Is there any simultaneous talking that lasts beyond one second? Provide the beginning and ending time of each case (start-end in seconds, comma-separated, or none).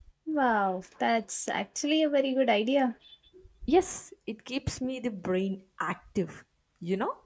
none